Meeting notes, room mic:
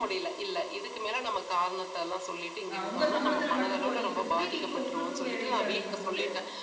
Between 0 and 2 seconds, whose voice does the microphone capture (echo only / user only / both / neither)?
echo only